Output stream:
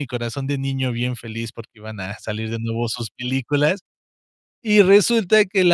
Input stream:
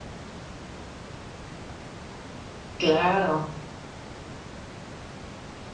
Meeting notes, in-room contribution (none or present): present